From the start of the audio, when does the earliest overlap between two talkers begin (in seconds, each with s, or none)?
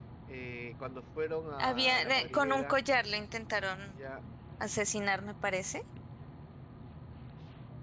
1.6 s